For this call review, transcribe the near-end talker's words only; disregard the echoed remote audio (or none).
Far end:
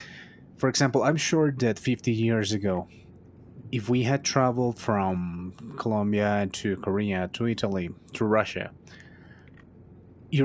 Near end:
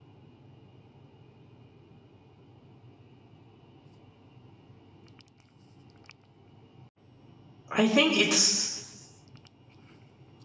I think it's